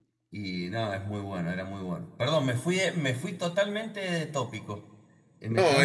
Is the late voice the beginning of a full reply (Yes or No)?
Yes